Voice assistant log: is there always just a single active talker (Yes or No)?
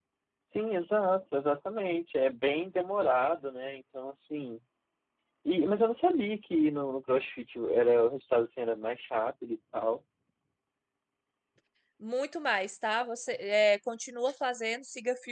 Yes